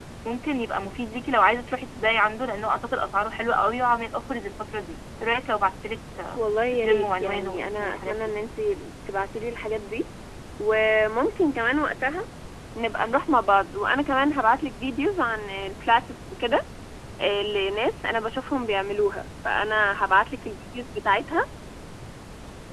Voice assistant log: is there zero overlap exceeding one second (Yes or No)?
No